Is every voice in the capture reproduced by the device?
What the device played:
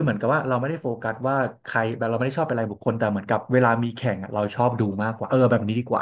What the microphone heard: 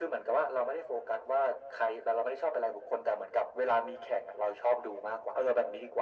Yes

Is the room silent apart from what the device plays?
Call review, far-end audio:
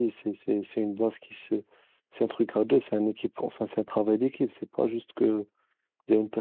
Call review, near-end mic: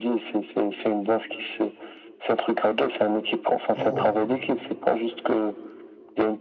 No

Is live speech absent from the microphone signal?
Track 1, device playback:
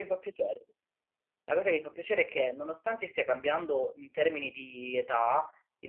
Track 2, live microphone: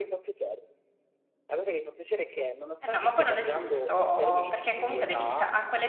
No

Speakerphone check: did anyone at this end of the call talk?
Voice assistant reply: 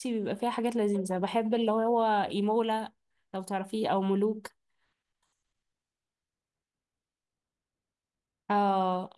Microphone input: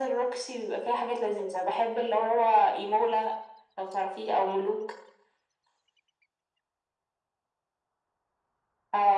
No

